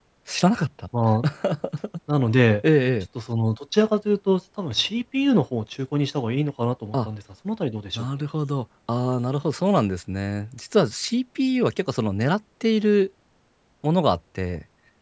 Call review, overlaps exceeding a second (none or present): none